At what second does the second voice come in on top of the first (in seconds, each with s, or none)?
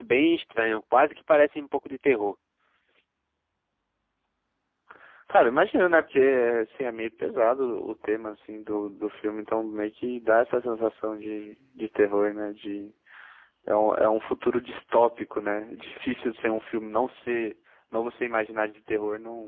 none